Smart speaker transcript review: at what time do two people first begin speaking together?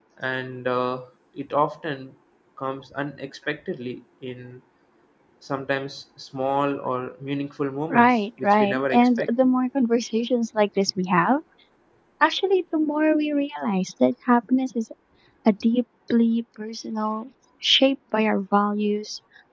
7.9 s

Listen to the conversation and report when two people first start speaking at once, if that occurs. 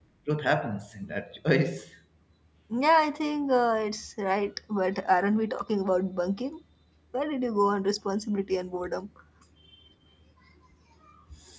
none

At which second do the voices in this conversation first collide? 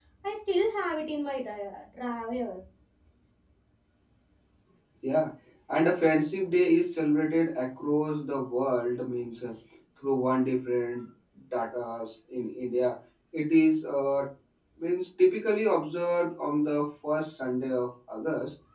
none

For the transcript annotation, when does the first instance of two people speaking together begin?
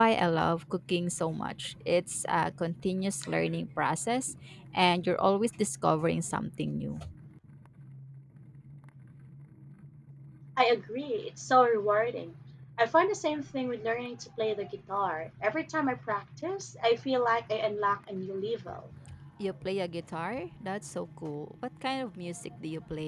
none

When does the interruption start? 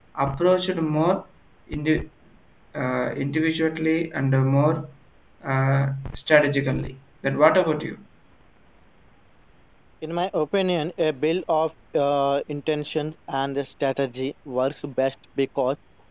none

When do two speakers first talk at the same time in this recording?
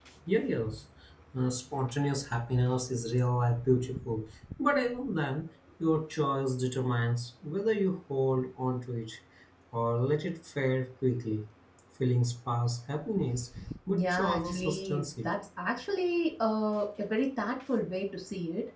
13.9 s

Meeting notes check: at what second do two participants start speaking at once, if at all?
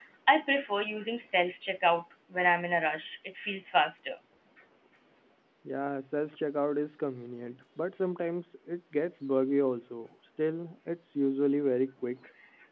none

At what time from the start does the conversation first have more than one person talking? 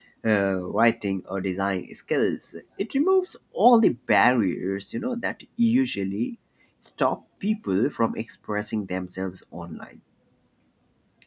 none

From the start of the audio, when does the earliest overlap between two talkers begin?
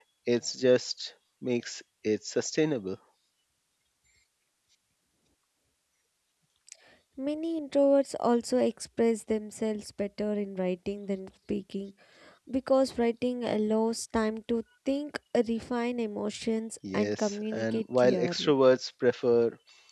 16.8 s

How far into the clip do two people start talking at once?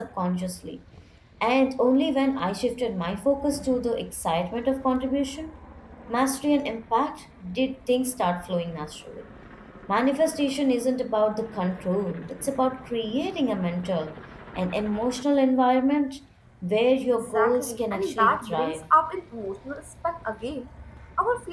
17.2 s

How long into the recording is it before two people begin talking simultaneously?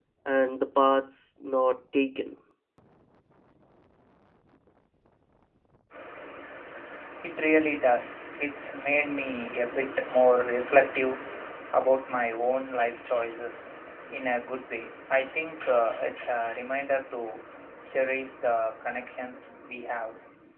none

